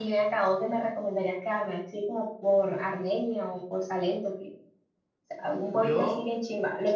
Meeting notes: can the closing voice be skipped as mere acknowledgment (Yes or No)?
Yes